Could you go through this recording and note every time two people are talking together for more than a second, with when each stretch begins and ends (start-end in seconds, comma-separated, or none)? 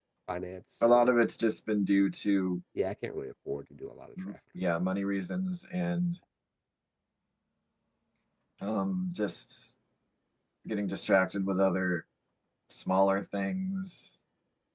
none